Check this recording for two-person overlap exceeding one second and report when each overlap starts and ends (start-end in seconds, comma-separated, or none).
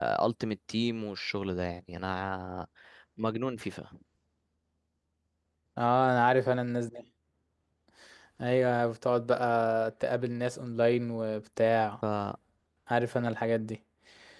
none